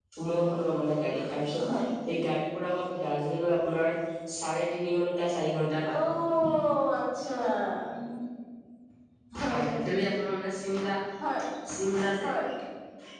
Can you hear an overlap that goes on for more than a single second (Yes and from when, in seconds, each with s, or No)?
No